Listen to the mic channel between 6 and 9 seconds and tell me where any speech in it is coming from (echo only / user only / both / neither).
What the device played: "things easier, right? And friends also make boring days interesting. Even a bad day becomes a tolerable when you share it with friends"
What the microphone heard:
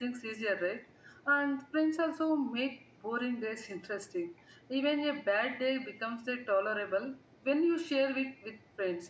echo only